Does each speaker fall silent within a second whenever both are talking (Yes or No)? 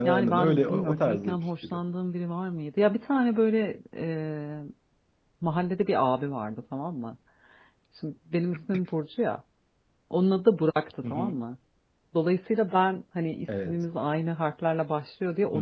No